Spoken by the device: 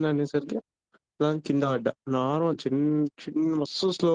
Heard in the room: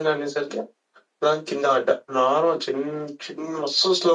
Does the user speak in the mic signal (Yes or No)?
No